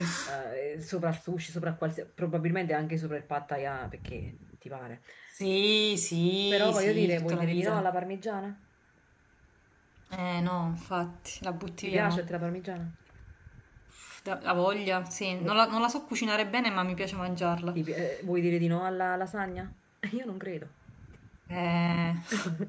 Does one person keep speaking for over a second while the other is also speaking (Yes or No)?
Yes